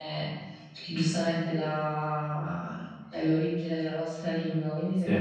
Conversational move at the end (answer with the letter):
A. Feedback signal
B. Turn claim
A